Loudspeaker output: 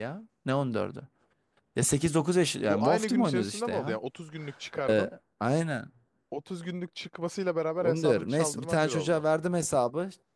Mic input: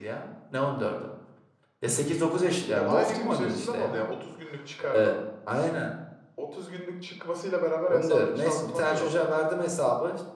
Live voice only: none

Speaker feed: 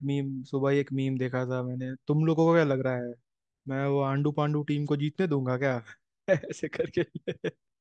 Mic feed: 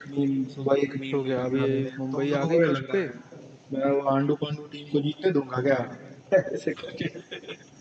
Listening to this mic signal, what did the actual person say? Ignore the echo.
तो क्या अभी मुंबई आ गई फर्स्ट पे

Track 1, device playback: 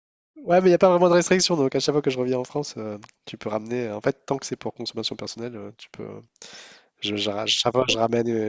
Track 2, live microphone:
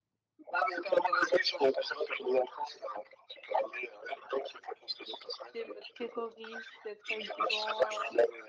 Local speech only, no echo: l'idée me terrorise d'être avec des gens. euh,

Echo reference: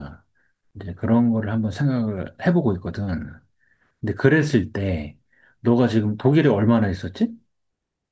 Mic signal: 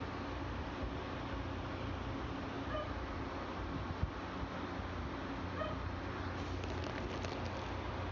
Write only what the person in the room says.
none

